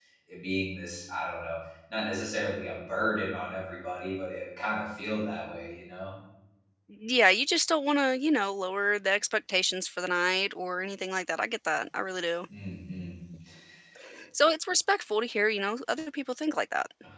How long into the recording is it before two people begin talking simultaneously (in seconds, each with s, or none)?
none